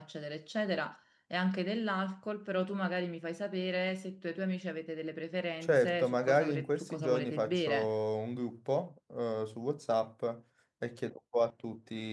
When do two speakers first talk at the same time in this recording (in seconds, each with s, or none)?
5.6 s